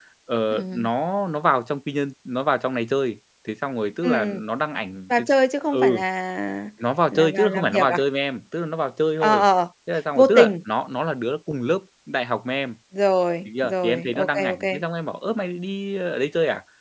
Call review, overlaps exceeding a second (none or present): present